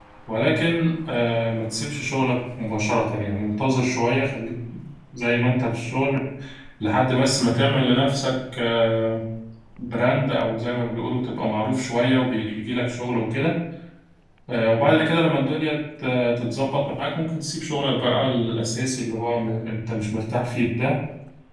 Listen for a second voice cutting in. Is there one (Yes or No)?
No